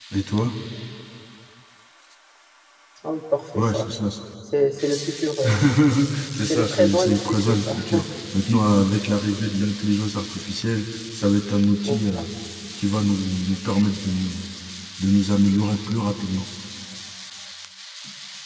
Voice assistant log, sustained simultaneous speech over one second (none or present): present